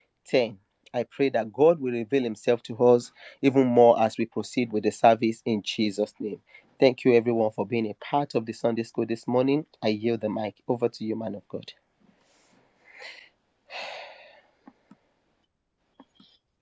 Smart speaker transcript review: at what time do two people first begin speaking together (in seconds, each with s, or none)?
none